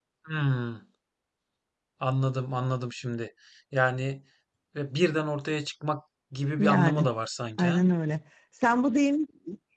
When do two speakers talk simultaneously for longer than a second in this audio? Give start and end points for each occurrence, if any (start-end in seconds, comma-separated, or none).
none